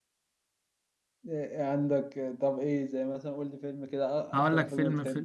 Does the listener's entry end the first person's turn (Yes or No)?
Yes